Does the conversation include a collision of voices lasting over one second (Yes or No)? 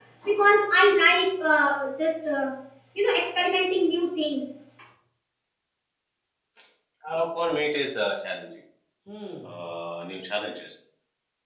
No